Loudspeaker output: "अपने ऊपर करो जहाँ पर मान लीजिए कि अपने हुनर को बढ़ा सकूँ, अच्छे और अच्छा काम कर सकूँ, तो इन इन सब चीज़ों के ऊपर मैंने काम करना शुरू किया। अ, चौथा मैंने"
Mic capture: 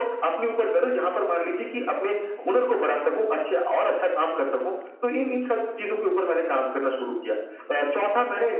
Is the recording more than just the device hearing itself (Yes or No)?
No